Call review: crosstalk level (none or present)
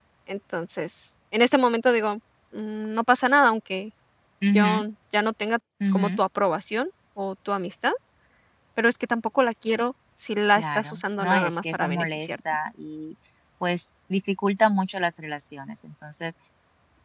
present